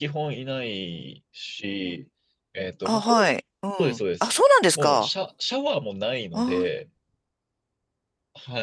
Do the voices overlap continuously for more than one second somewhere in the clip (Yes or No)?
No